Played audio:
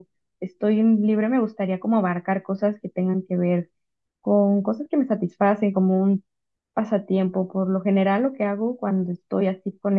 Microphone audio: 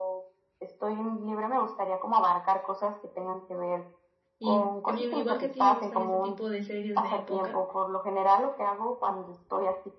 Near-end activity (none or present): present